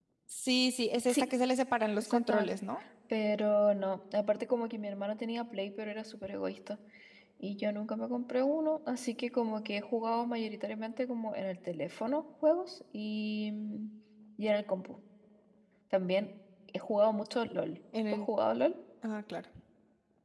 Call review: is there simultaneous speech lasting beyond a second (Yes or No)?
No